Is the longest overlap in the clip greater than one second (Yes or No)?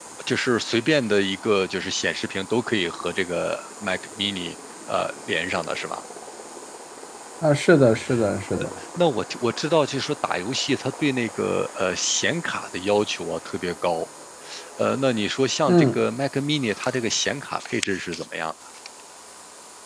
No